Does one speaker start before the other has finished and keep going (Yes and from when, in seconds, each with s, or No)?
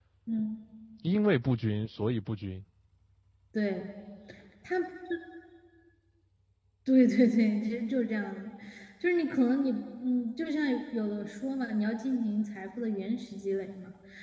No